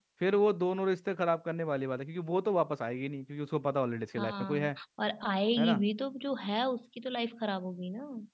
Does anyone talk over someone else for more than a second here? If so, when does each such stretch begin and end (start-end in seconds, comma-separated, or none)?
none